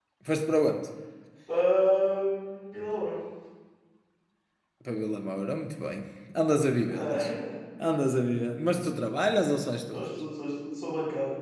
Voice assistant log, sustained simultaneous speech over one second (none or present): none